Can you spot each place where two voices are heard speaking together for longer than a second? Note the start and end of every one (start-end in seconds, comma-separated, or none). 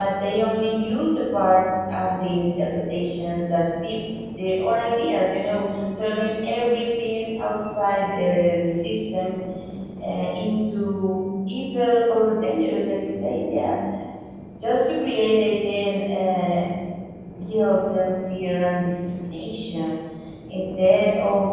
none